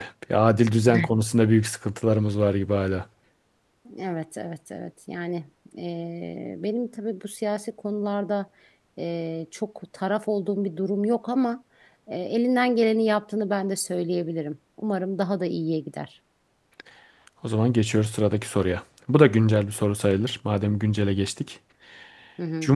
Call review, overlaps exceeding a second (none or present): none